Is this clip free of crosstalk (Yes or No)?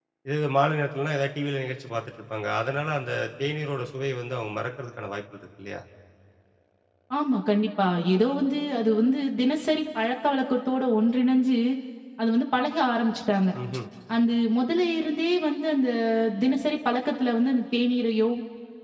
Yes